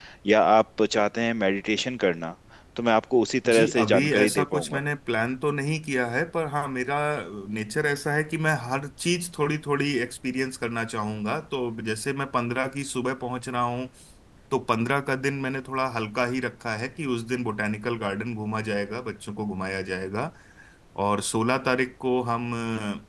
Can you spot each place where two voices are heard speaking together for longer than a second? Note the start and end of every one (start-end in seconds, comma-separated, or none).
3.5-4.8